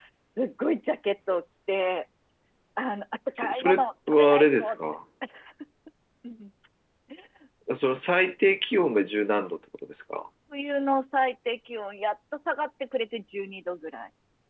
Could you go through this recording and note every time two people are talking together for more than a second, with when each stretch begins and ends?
3.4-4.7

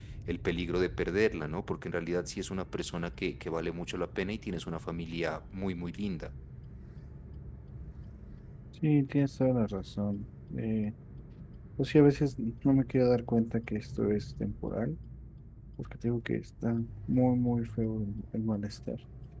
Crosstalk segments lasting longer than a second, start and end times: none

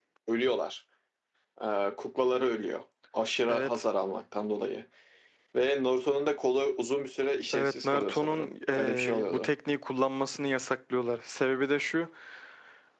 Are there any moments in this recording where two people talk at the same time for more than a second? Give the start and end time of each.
7.5-9.5

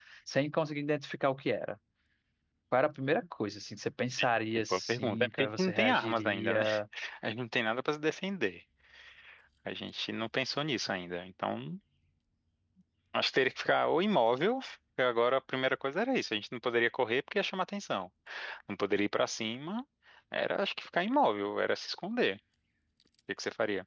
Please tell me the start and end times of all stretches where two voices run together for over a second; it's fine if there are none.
4.6-6.6

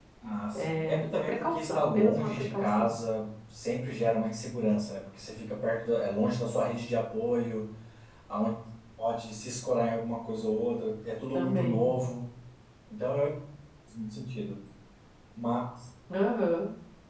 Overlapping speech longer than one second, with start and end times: 0.5-2.9

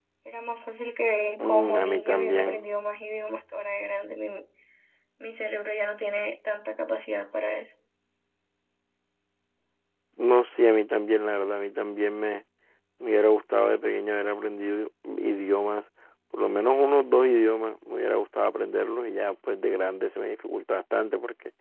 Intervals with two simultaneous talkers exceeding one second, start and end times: 1.4-2.7

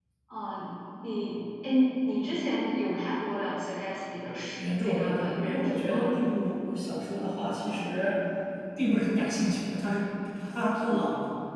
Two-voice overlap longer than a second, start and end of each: 4.8-6.0

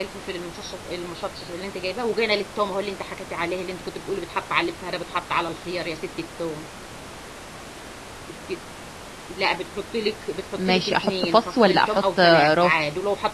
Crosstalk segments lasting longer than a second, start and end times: 10.7-12.8

